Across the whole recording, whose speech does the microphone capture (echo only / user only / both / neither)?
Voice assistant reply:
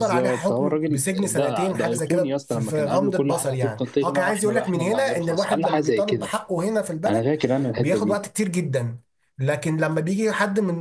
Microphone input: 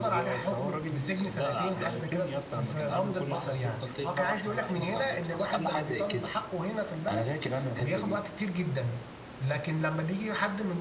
echo only